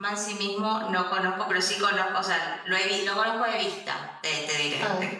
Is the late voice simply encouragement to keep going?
No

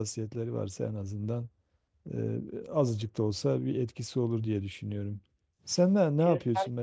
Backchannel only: Yes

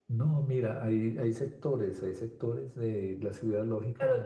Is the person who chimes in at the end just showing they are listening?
No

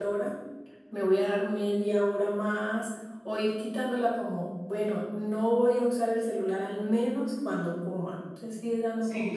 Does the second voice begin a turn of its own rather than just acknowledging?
Yes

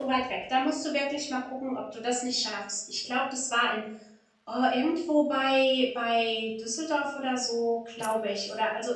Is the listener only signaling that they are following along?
Yes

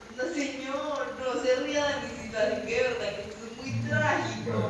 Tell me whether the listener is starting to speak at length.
Yes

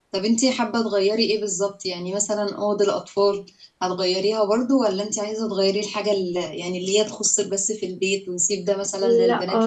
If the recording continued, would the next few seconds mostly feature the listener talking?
Yes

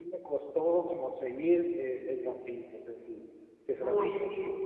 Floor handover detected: Yes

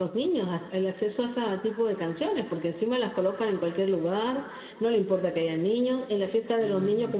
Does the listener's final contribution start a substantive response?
No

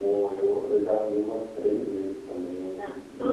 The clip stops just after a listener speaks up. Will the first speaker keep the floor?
No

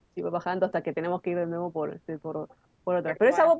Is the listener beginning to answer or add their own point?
No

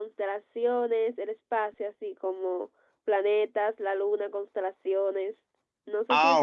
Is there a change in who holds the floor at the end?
Yes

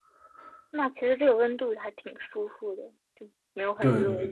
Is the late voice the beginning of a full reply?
Yes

